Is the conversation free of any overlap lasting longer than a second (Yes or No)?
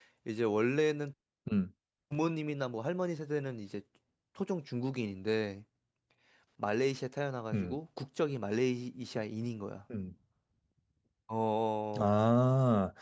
Yes